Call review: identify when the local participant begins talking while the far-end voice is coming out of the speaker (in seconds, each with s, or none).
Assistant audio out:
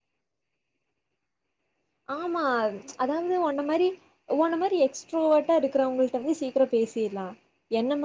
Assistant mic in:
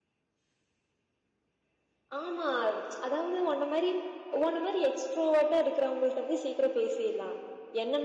none